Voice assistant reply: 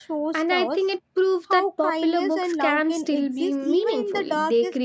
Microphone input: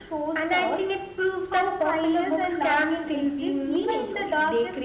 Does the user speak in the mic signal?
No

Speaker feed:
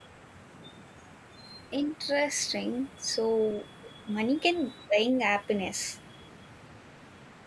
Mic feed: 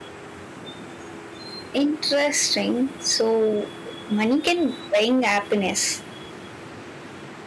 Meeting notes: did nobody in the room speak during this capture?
Yes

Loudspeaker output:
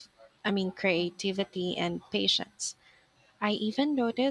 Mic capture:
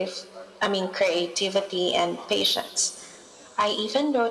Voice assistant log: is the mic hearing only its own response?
Yes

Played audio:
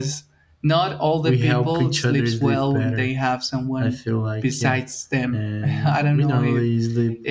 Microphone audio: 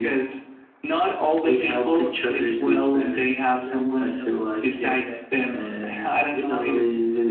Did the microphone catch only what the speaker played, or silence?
No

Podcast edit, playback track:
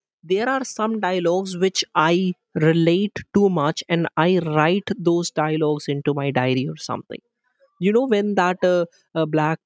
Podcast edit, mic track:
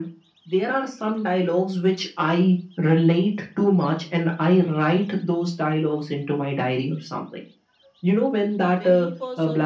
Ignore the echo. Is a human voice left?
Yes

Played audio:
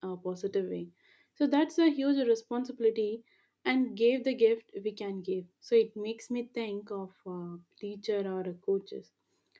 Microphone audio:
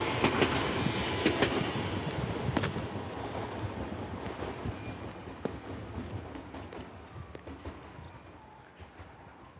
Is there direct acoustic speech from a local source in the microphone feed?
No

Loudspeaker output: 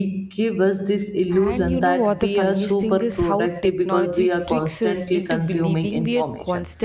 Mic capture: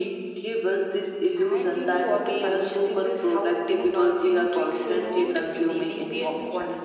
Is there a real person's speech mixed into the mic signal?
Yes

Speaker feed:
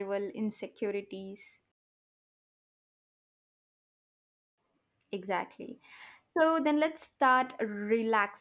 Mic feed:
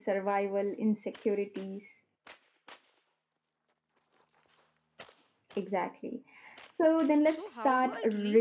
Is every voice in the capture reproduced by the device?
No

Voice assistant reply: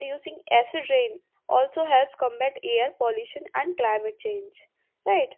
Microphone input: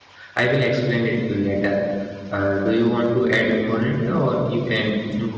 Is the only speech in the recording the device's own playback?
No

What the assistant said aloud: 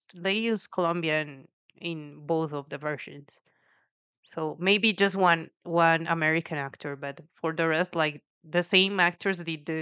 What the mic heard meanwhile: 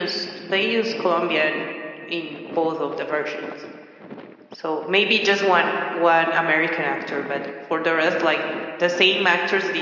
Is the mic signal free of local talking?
Yes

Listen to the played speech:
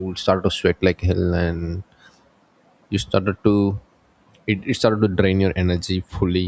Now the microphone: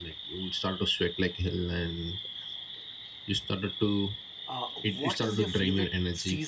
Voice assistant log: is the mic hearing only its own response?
No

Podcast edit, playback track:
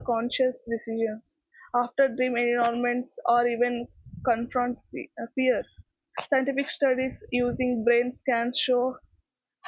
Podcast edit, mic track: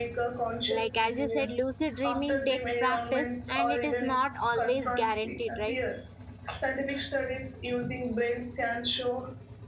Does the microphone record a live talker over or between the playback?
Yes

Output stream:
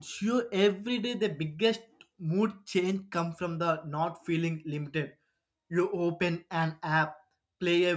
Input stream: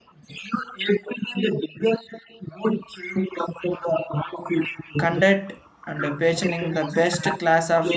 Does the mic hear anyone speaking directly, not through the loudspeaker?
Yes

